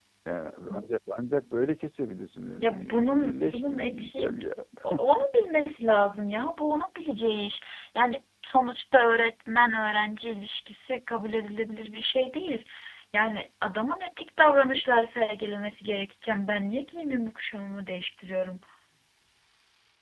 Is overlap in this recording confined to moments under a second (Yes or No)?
No